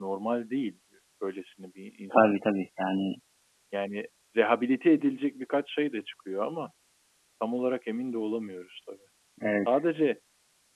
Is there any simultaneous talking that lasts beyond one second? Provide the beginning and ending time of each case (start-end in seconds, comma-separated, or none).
none